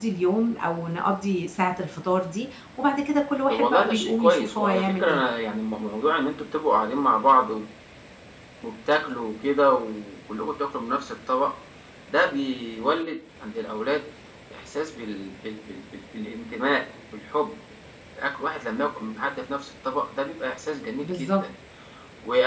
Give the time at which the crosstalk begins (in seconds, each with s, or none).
3.5 s